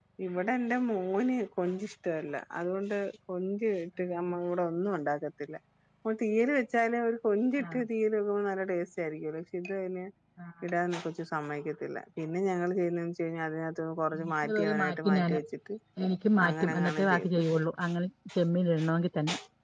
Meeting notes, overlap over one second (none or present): present